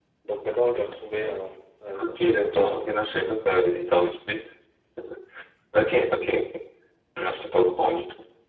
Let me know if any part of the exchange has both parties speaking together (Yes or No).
Yes